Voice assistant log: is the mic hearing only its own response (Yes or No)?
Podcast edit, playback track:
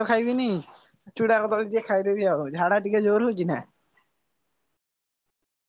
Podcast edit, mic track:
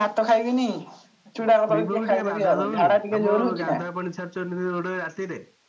No